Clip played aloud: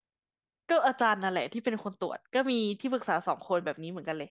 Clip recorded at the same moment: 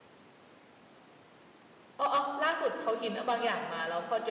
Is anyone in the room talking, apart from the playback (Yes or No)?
Yes